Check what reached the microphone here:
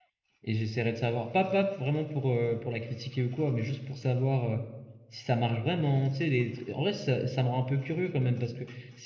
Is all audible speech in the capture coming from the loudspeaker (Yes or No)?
No